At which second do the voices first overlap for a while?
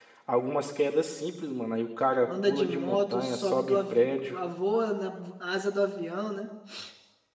2.2 s

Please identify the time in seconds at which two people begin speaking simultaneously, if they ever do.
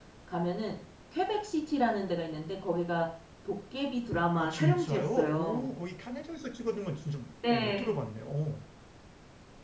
4.4 s

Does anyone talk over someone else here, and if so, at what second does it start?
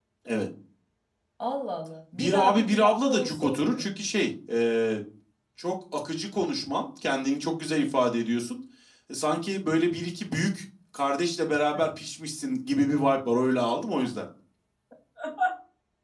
2.1 s

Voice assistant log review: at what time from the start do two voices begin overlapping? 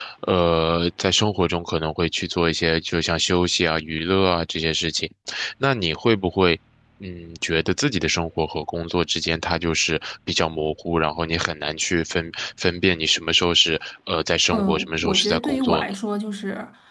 14.5 s

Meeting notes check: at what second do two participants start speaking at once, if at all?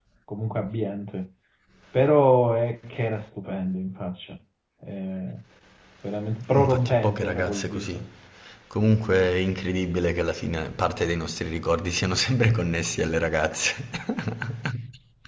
6.6 s

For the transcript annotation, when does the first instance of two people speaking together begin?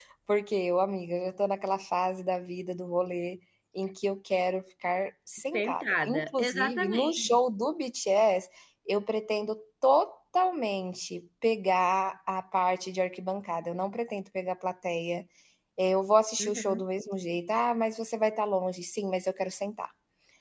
5.5 s

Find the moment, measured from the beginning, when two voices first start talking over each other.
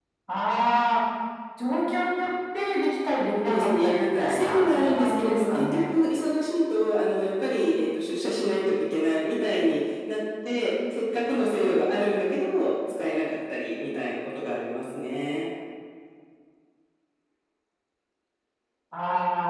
3.4 s

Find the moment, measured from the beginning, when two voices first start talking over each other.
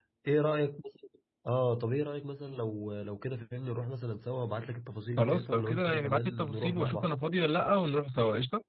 5.2 s

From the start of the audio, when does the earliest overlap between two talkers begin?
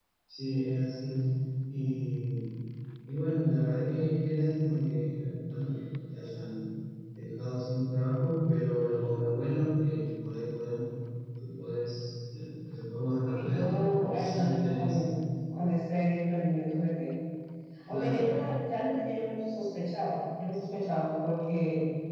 13.3 s

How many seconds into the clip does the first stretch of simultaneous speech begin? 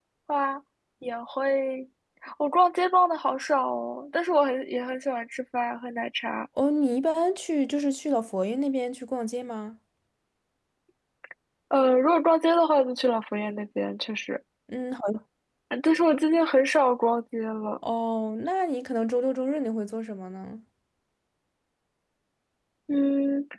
none

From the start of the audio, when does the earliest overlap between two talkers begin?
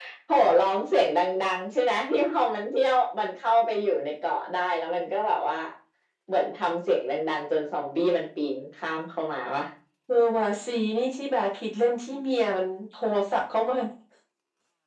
none

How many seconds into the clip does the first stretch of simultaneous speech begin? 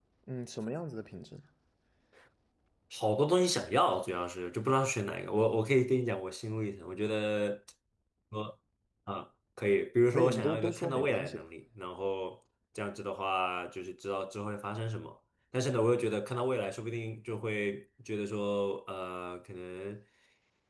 10.1 s

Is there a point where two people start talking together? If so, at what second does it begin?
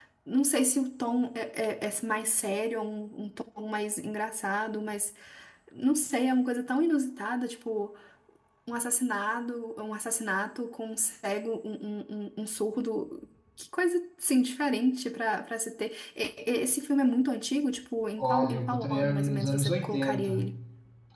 18.2 s

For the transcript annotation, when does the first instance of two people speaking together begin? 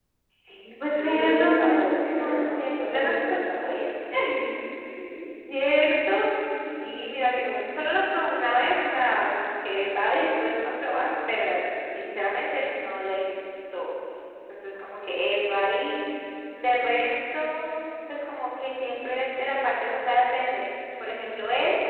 0.9 s

